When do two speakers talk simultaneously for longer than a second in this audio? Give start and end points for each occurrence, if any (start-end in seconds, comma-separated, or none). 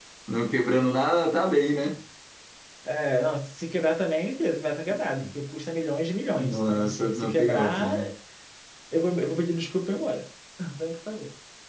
6.2-7.9